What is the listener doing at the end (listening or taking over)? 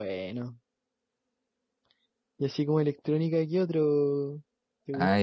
taking over